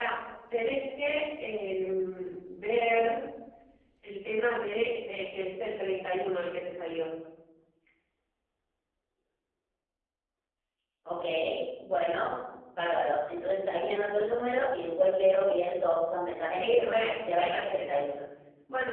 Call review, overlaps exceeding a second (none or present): present